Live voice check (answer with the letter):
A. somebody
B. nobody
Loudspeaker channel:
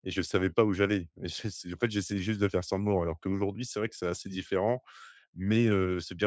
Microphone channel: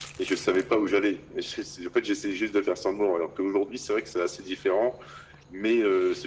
B